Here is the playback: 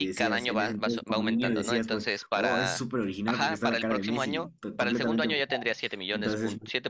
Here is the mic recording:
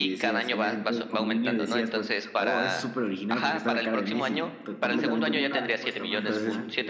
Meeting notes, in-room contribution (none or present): present